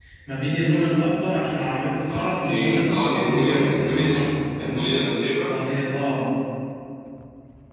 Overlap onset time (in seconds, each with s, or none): 2.1 s